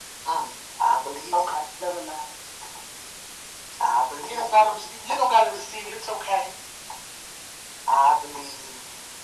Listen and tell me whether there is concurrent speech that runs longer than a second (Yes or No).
No